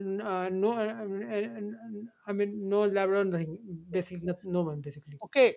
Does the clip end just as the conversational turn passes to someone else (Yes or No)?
Yes